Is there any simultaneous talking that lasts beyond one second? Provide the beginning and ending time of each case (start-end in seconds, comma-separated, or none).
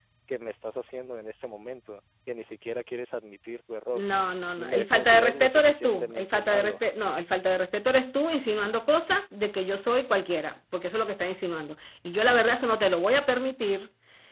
4.6-6.8